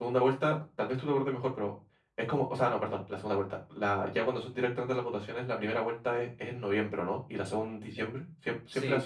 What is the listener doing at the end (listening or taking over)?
taking over